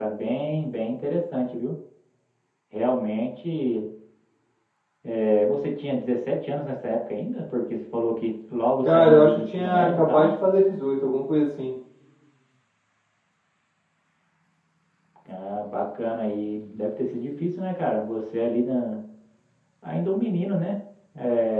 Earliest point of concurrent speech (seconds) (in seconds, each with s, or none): 8.8 s